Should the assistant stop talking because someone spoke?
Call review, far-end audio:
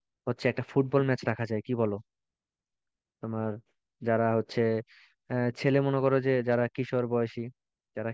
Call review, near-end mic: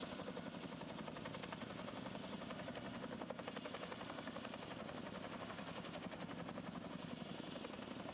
No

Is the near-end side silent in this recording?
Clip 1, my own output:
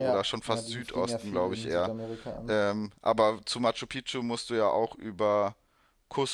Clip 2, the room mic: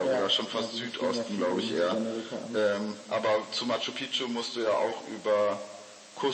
Yes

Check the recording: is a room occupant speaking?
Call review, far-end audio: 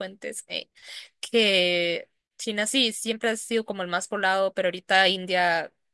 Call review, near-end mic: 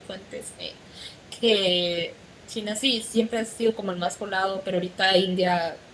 No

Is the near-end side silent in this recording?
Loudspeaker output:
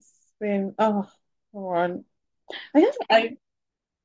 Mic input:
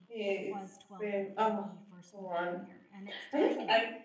No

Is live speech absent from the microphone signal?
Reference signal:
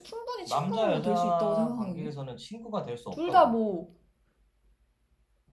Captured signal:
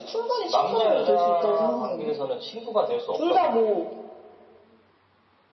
Yes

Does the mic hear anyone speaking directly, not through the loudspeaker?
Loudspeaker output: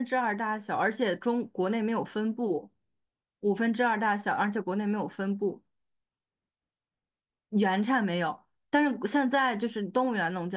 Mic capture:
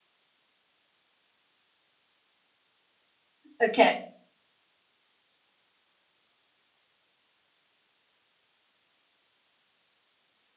Yes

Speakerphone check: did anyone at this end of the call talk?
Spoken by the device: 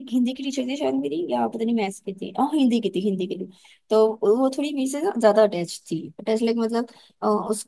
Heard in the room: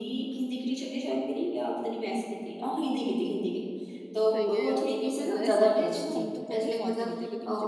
Yes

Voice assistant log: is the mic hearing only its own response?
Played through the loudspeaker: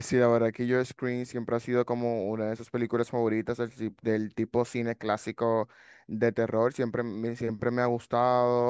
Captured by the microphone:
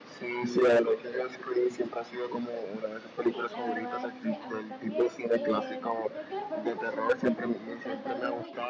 No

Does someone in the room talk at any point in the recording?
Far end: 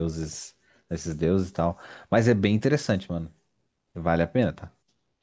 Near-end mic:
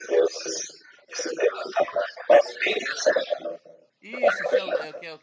Yes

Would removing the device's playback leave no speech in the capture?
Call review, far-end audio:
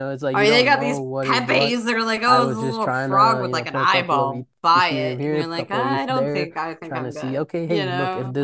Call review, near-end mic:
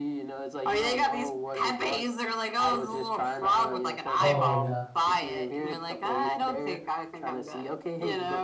No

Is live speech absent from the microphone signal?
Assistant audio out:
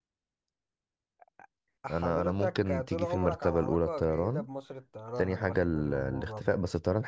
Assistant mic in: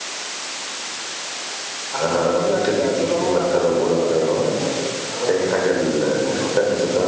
Yes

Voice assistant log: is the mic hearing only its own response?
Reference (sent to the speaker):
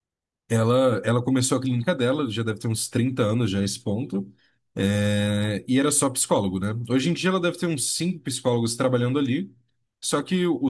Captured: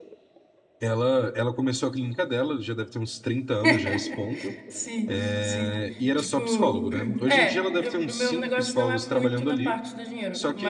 No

